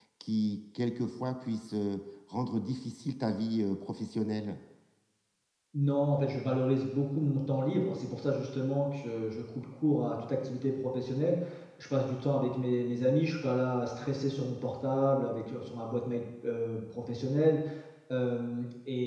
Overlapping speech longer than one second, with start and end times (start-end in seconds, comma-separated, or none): none